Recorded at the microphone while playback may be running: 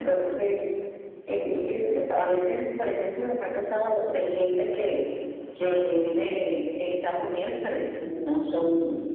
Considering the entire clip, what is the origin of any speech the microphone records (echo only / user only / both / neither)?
echo only